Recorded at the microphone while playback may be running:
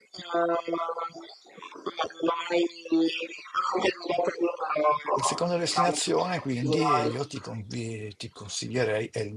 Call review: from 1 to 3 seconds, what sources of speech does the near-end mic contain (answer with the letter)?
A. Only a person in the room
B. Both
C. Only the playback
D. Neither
C